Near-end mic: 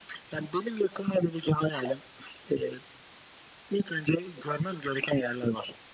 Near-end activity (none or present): none